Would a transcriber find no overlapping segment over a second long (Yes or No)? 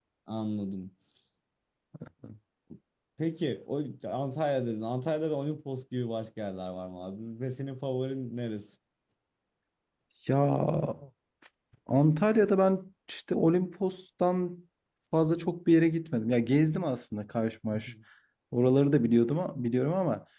Yes